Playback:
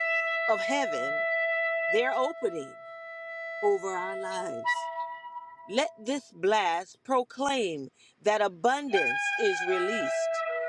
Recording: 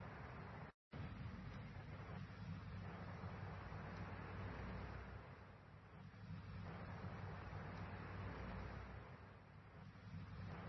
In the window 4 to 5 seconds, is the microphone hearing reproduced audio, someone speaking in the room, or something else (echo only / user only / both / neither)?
neither